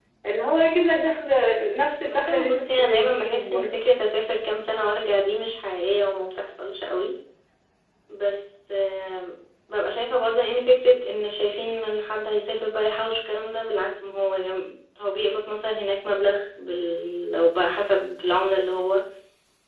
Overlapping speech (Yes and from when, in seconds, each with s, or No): Yes, from 2.1 s